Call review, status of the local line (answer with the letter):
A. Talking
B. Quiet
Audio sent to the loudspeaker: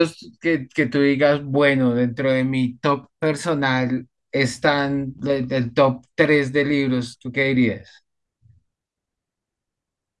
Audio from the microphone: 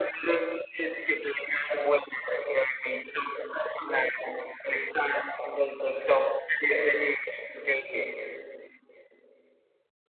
B